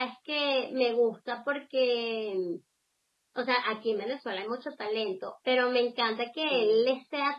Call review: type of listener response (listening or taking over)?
listening